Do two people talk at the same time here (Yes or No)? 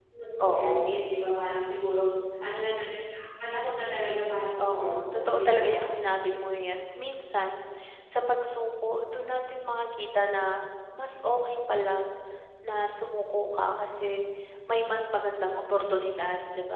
Yes